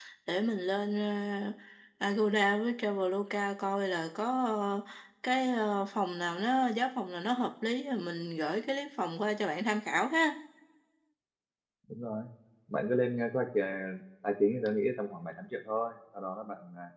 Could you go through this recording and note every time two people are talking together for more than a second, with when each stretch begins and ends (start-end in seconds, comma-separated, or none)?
none